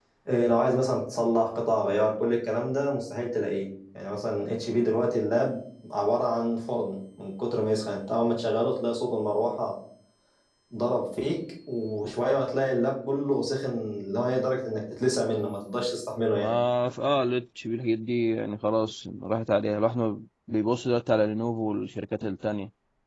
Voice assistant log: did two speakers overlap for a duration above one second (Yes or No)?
No